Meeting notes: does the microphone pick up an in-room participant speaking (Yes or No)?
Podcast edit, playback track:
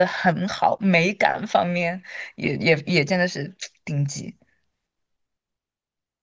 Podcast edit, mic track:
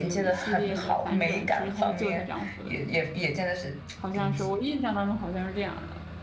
Yes